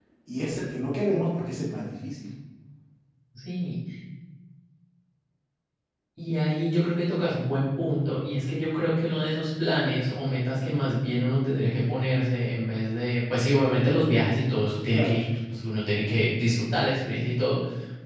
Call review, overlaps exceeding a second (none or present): none